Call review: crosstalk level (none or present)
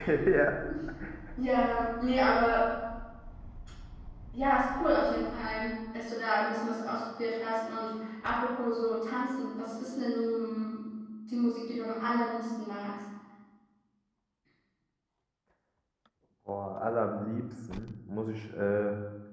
none